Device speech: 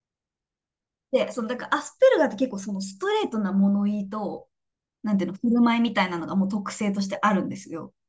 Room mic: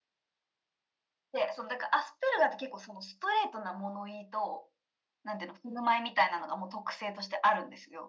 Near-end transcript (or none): none